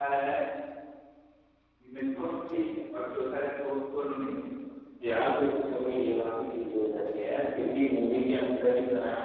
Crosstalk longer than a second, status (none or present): none